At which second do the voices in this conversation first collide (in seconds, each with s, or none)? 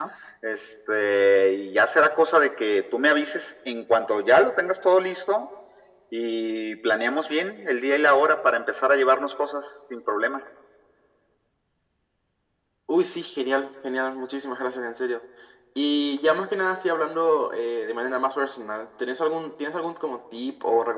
none